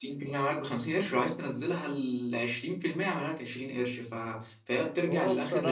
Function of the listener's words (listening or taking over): taking over